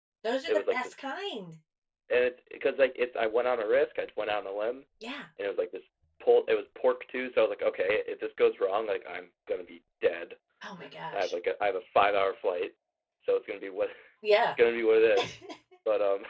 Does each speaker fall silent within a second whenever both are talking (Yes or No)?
Yes